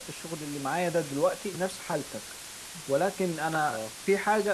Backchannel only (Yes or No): Yes